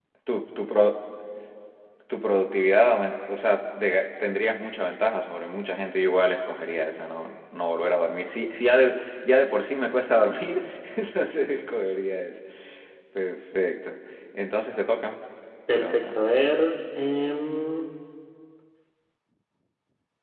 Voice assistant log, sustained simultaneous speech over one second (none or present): none